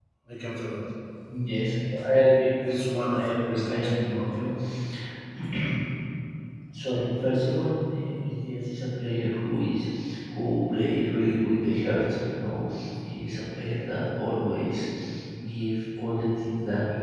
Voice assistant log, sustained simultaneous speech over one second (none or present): present